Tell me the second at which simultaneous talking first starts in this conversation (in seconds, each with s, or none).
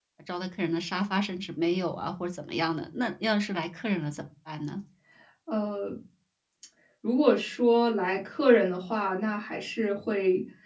none